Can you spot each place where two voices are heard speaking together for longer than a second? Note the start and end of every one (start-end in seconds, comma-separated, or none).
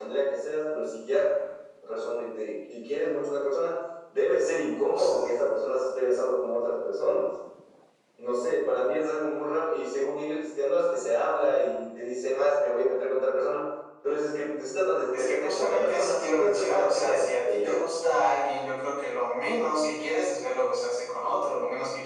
15.1-17.8